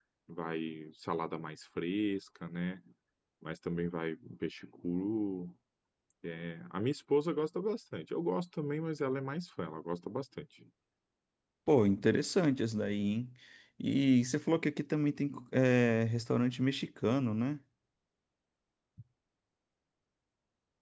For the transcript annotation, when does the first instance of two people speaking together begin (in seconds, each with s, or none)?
none